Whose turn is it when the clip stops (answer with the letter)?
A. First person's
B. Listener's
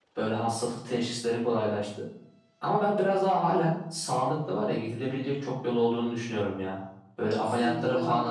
A